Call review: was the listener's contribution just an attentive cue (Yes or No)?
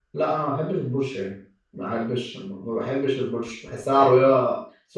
Yes